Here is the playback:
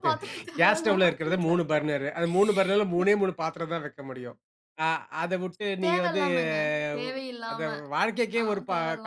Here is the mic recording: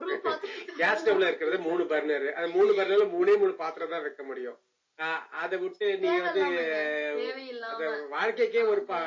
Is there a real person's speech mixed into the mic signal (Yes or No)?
No